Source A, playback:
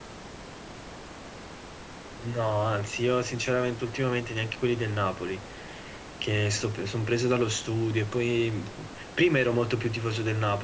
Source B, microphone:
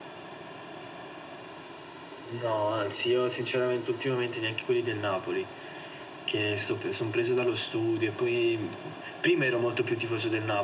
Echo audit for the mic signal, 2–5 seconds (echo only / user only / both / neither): echo only